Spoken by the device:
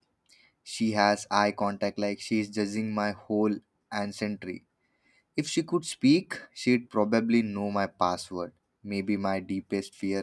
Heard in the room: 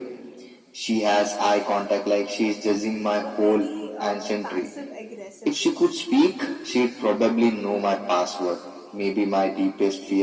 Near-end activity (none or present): present